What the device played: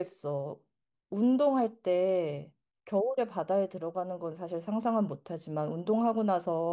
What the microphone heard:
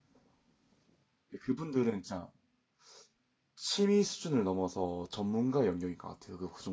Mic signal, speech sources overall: user only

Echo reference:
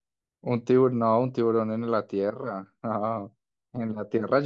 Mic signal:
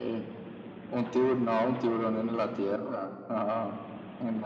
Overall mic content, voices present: echo only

